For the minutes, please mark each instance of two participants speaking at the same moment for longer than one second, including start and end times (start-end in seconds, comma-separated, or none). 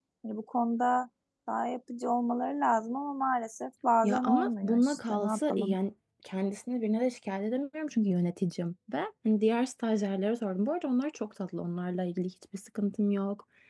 4.0-5.8